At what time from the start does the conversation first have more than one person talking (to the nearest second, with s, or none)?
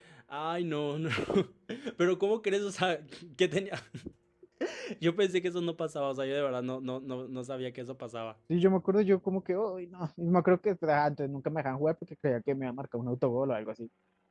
none